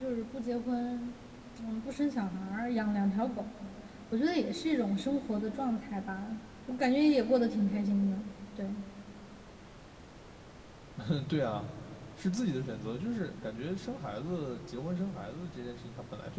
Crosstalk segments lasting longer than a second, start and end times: none

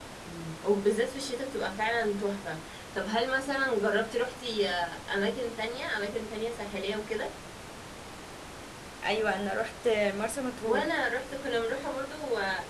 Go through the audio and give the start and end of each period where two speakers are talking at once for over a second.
none

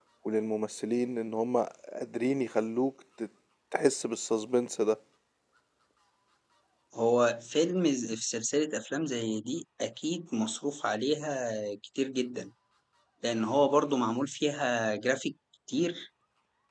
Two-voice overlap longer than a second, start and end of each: none

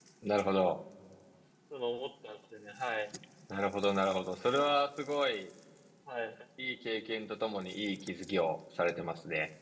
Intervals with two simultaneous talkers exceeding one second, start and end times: none

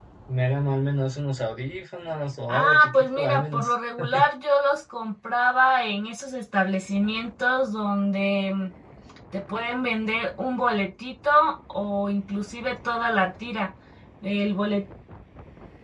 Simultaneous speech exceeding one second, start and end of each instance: 2.5-3.7

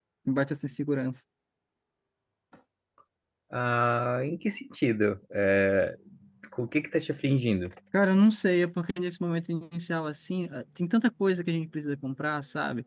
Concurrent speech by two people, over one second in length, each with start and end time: none

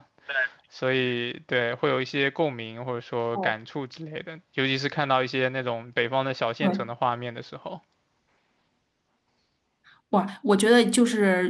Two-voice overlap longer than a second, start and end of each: none

